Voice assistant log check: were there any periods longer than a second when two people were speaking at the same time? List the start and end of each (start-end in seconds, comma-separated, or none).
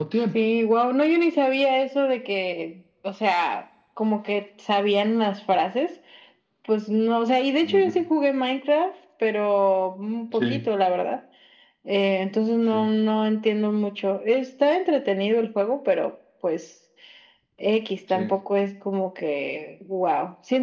none